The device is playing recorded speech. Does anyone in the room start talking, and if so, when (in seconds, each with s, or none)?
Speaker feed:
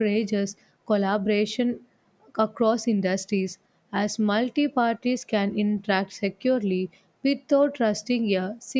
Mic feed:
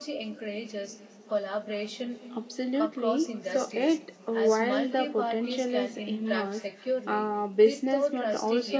2.4 s